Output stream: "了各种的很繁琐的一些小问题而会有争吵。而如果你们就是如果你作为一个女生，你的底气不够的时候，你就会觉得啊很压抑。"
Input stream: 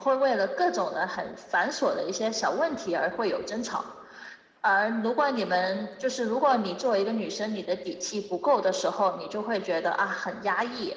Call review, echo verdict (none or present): present